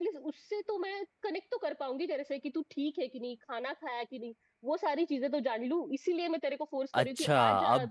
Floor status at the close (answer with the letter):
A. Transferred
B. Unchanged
A